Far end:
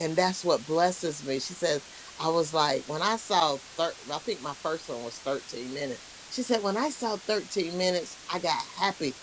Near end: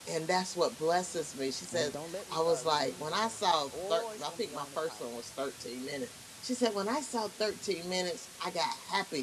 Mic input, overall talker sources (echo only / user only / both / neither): both